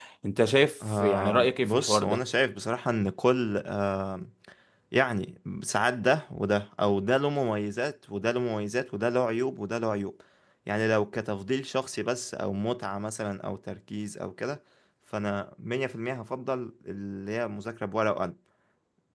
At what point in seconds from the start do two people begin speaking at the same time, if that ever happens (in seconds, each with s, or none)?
0.9 s